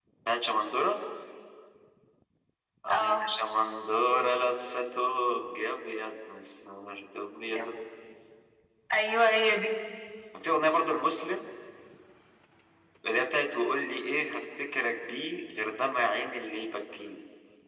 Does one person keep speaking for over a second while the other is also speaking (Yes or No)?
No